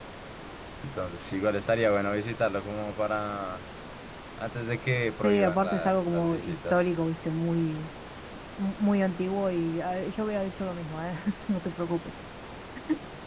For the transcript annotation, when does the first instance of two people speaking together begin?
5 s

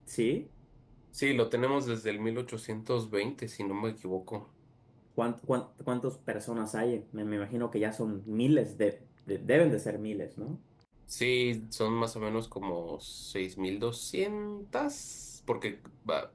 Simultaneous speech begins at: none

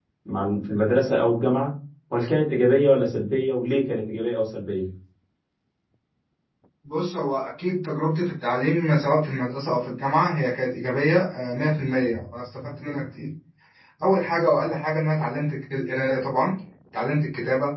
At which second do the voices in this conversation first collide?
none

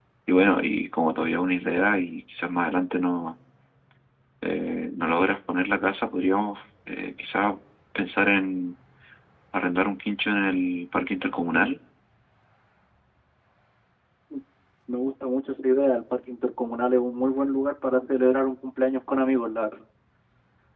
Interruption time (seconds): none

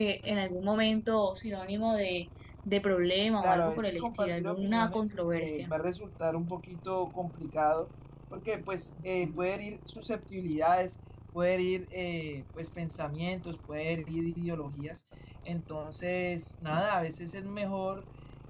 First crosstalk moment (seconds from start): 3 s

